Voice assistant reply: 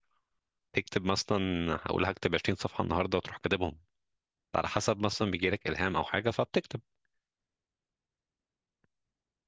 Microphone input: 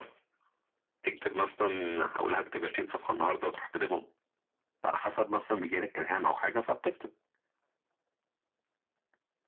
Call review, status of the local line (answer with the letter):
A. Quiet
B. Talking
A